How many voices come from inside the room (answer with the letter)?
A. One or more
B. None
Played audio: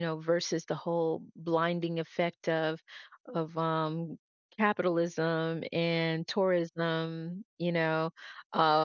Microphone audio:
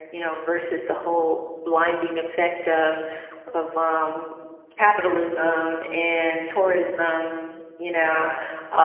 A